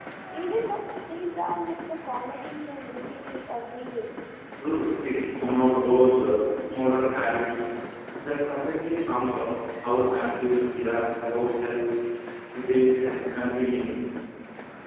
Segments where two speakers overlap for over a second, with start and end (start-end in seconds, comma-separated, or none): none